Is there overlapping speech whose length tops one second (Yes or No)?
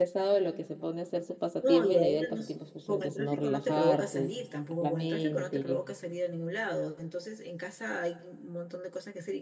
Yes